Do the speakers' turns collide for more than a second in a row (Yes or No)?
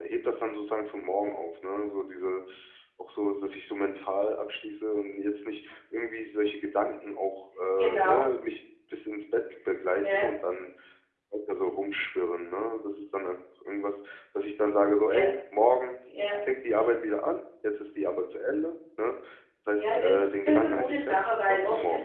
Yes